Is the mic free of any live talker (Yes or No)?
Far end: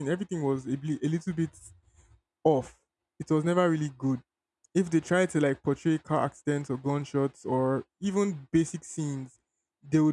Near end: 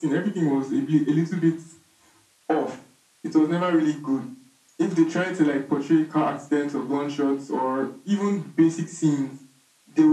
Yes